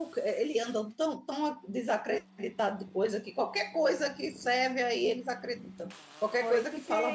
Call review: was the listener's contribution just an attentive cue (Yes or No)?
No